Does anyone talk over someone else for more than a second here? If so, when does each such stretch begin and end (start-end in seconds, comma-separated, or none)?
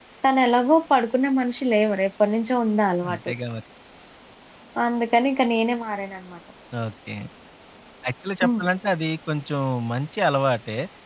none